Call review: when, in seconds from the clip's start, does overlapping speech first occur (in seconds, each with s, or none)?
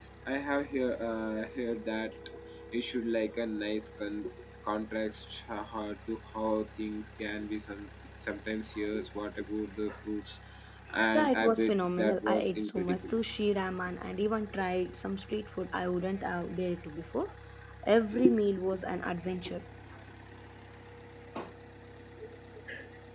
11.1 s